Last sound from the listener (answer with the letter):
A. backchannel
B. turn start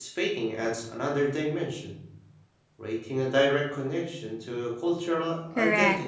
B